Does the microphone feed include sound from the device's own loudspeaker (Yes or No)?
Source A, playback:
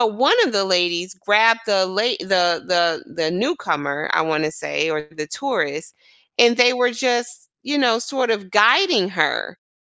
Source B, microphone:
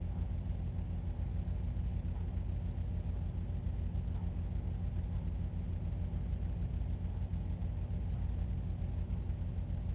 No